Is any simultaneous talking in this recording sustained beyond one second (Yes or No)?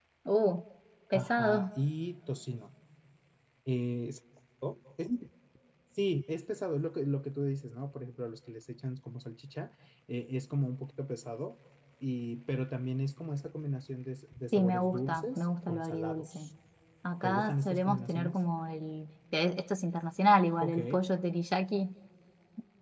Yes